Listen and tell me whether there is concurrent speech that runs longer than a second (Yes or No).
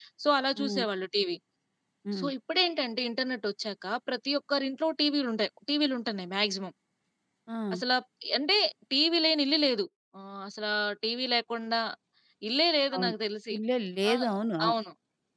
No